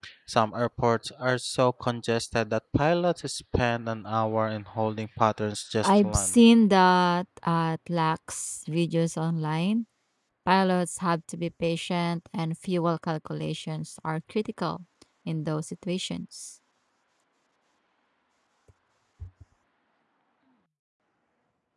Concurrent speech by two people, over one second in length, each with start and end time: none

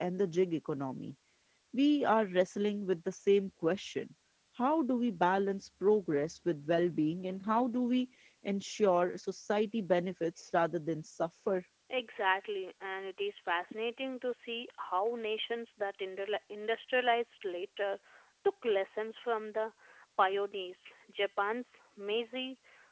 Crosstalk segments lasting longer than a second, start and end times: none

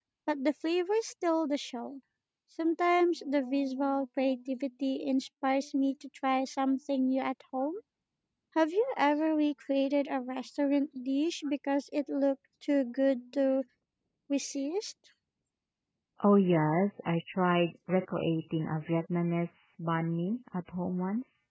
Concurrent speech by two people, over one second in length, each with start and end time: none

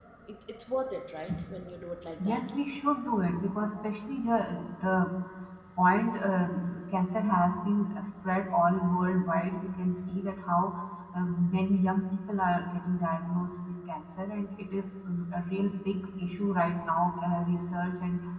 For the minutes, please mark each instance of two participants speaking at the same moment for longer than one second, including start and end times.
none

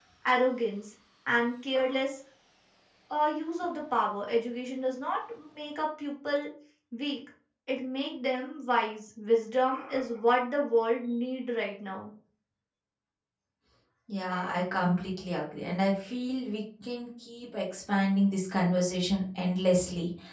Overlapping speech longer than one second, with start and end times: none

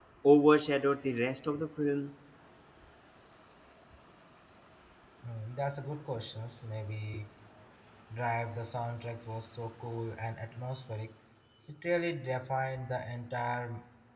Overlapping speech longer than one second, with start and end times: none

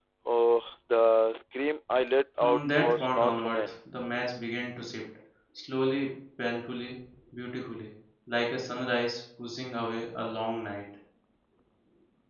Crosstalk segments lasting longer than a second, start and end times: 2.4-3.7

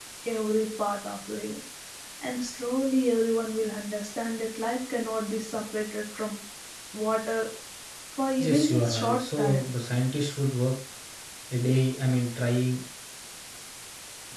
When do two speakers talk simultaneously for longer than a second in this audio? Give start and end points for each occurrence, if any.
8.4-9.8

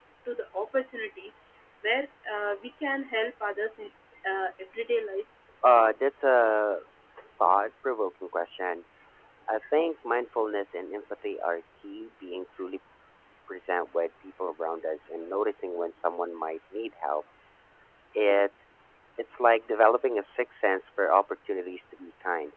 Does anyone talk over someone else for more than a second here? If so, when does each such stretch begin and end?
none

